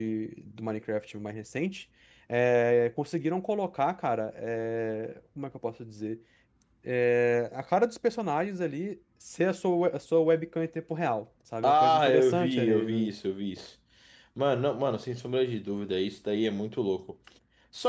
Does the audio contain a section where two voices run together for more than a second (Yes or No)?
Yes